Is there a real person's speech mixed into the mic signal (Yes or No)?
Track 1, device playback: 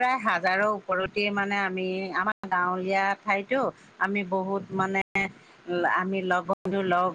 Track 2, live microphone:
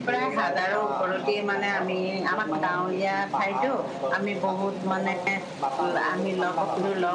Yes